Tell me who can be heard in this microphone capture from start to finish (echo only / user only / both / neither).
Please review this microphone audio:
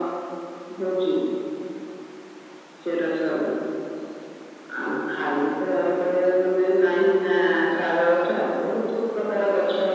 echo only